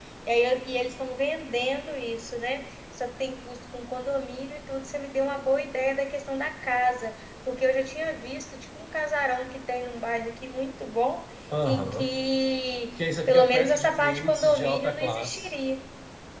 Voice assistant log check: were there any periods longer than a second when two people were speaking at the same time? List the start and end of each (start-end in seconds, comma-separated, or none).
13.3-15.5